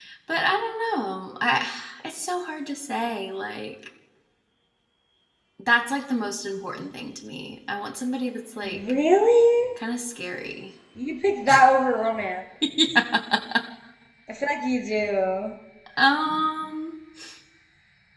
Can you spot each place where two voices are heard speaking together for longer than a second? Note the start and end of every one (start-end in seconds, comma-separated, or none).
none